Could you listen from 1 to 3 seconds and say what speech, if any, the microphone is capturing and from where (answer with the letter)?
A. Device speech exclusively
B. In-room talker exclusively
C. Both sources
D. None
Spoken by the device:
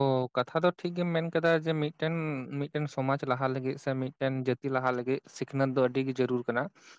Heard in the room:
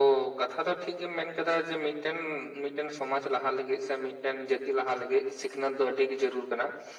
A